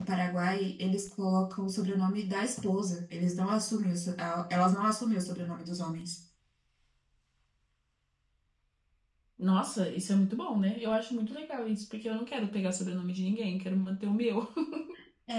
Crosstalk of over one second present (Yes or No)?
No